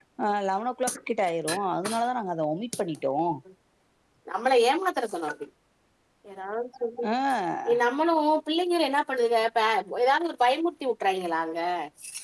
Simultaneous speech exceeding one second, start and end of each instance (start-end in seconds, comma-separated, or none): none